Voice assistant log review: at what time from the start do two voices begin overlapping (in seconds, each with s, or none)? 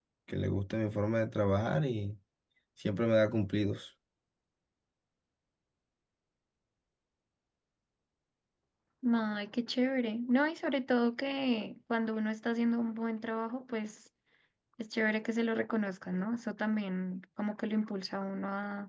none